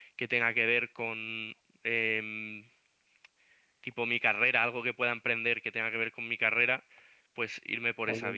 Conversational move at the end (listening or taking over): taking over